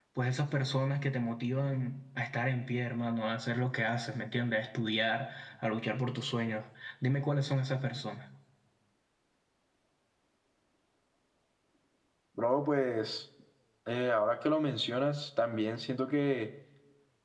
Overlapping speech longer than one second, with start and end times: none

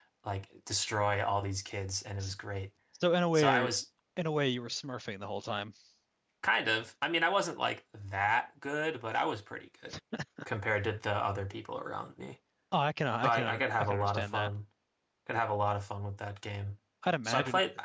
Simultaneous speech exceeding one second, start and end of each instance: 13.2-14.5

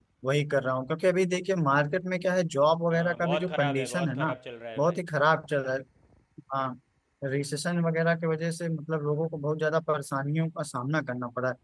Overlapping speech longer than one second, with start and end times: 2.9-4.3

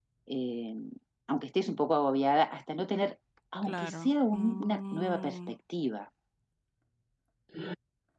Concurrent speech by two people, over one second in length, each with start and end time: 3.6-5.5

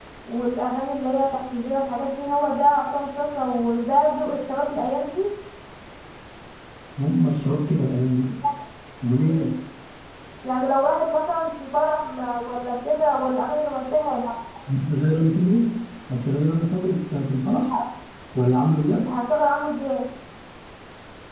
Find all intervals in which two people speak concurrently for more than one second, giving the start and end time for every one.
none

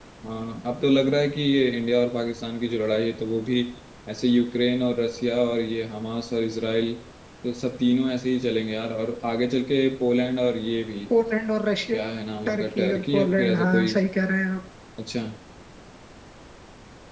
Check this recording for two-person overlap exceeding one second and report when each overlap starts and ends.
12.4-13.9

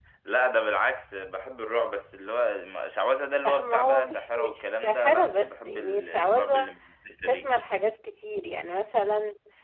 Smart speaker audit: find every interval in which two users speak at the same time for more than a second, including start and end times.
3.4-6.7

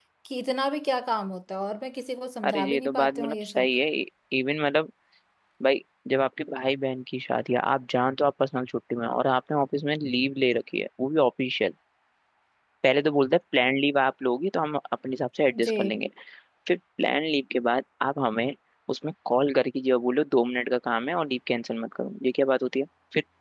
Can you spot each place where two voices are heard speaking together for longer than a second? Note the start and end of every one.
2.4-3.7

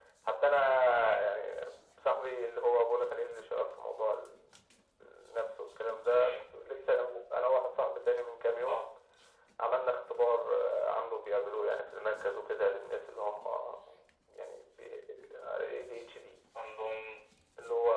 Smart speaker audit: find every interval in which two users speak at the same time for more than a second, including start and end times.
none

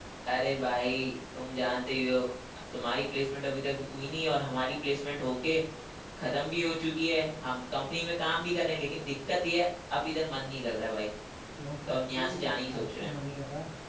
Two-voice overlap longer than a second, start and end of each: 11.9-13.1

